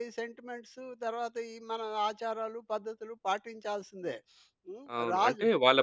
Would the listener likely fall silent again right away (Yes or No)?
No